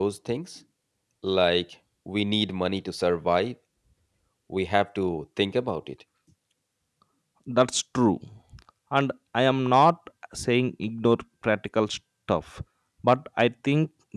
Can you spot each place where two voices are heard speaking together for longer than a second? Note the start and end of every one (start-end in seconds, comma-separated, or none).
none